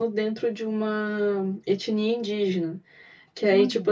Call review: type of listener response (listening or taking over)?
listening